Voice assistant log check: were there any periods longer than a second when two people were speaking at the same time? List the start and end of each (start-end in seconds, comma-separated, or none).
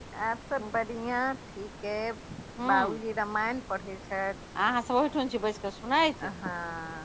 none